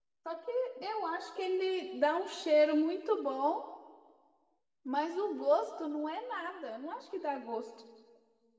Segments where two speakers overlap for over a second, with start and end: none

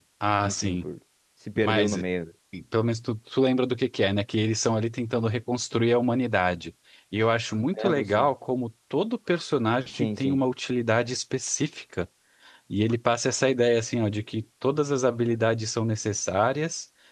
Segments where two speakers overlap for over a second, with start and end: none

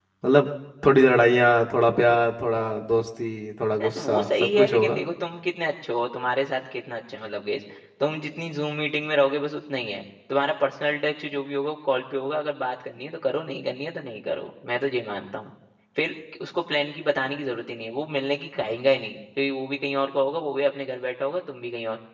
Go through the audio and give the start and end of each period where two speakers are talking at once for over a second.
3.8-5.0

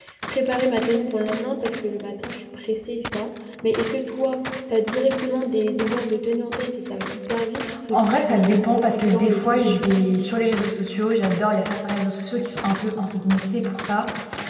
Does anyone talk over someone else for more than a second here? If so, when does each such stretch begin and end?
7.9-9.8

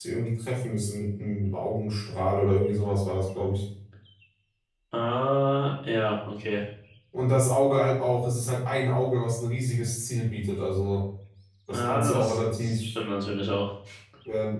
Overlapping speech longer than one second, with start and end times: 11.7-12.9

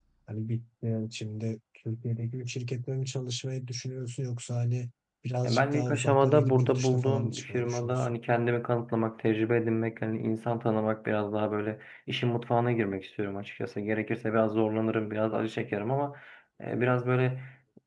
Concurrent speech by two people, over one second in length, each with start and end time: 5.4-8.2

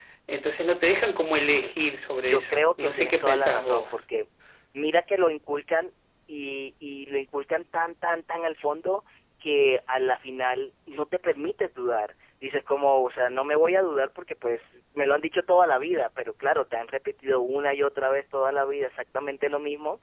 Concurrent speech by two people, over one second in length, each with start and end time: 2.1-3.9

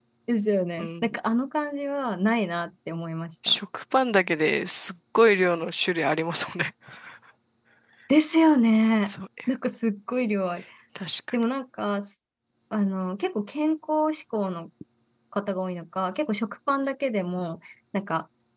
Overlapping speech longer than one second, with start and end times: none

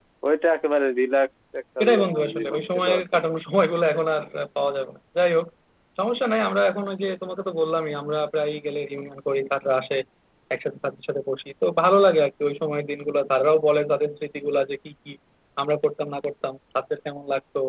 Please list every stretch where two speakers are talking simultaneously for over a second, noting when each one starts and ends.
1.8-3.0

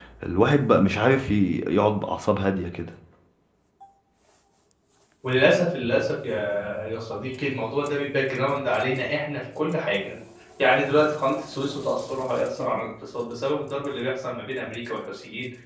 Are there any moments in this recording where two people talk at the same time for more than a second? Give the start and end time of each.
none

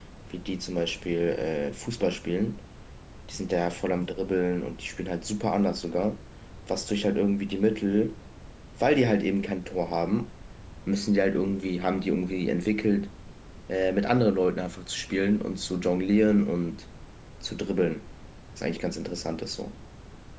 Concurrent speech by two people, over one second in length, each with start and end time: none

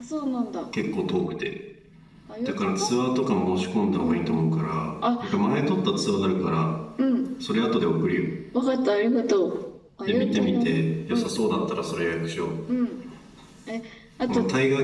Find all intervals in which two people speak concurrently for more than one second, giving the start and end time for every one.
10.1-11.6

